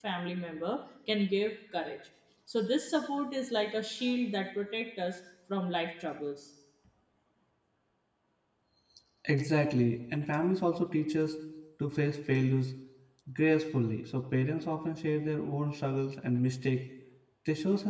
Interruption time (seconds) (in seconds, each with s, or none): none